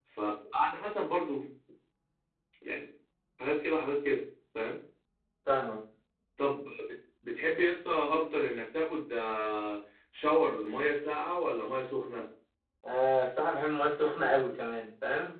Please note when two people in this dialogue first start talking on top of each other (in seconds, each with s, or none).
none